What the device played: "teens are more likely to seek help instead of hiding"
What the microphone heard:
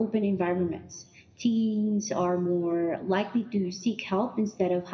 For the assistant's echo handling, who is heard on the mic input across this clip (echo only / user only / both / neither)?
echo only